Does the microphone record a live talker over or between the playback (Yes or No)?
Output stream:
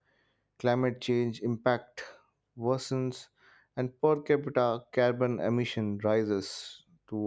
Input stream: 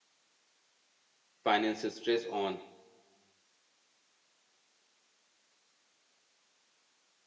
Yes